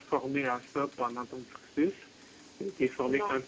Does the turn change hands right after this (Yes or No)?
No